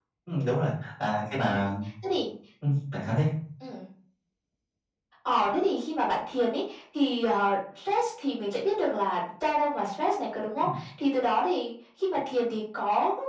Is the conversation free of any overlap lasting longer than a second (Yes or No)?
Yes